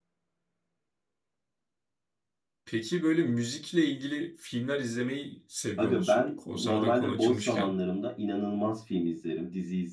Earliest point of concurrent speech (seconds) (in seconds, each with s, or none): 5.8 s